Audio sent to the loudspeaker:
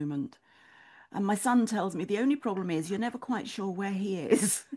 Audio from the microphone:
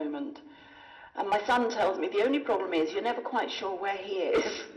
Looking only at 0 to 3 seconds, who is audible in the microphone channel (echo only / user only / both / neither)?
echo only